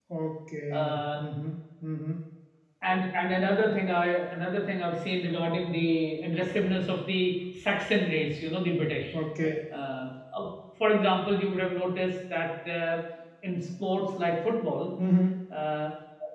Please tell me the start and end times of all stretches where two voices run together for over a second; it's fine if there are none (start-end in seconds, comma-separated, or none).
none